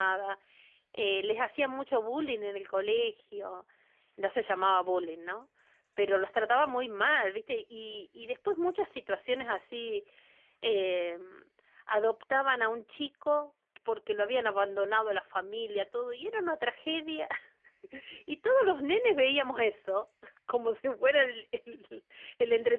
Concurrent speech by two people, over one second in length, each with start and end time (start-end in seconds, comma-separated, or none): none